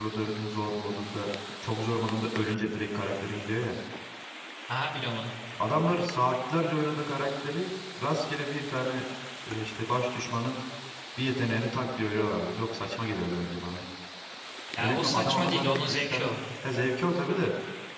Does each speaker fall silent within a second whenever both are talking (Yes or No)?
No